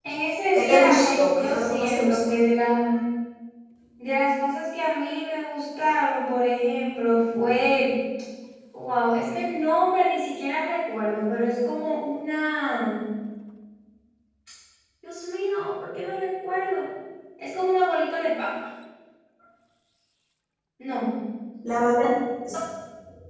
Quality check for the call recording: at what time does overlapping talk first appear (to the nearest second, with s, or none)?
1 s